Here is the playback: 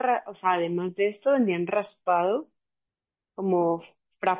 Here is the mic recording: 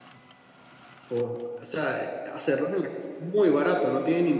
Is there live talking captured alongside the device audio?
Yes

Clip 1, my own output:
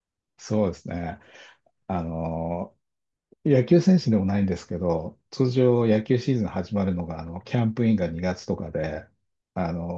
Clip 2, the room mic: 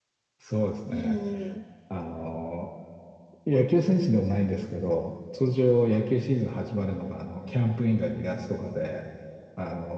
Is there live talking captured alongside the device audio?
Yes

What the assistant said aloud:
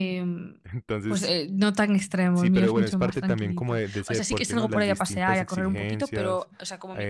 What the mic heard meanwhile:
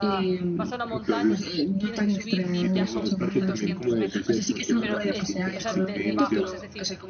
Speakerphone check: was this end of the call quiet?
No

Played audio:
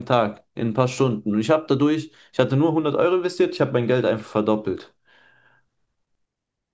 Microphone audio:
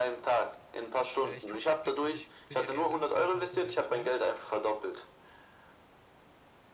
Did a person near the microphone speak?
Yes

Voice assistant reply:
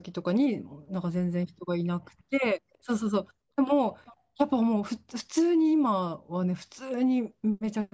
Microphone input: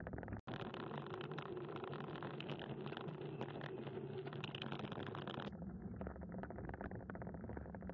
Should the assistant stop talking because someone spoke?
No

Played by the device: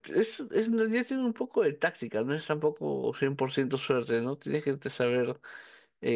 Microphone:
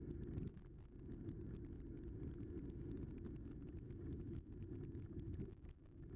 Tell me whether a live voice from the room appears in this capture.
No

